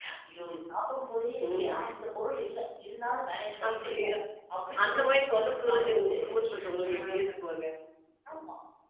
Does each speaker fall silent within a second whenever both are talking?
No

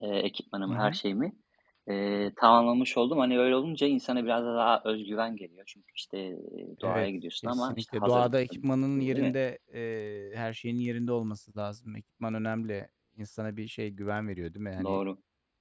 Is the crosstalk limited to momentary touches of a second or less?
No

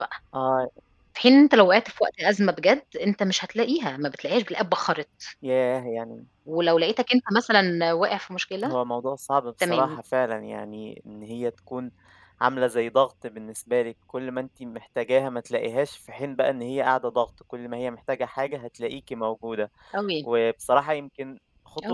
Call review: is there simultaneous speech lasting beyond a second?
No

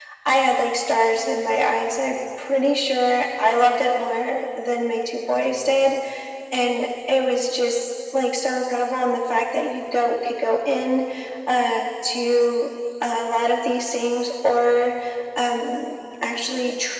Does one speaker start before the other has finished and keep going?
No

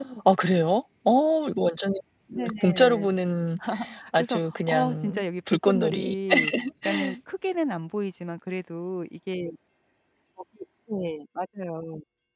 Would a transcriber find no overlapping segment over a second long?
No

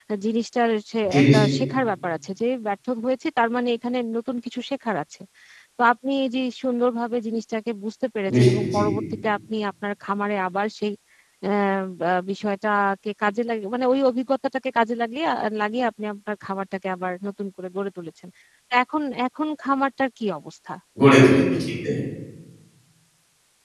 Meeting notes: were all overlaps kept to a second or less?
Yes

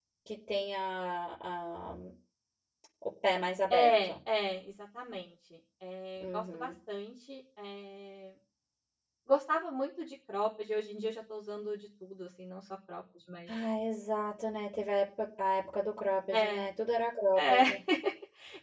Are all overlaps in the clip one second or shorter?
Yes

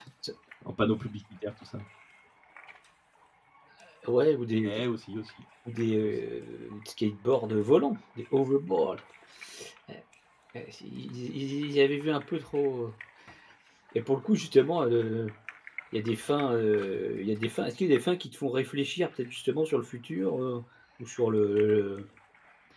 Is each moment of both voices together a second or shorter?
Yes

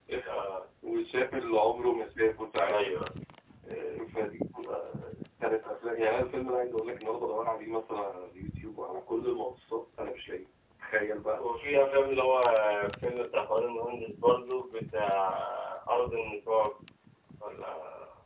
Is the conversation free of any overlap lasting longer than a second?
Yes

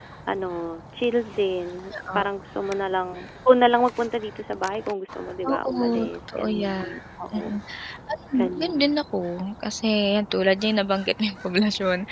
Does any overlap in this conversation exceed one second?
Yes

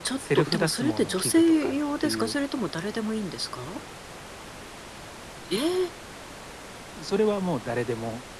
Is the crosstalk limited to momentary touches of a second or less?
No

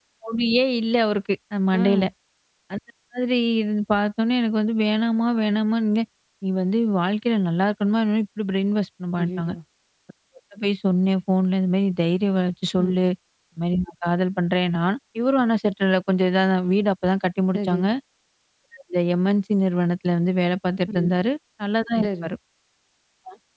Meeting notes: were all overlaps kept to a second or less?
Yes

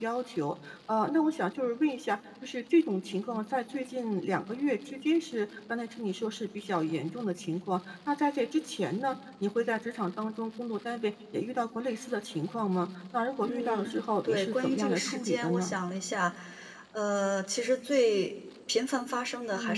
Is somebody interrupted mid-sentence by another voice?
Yes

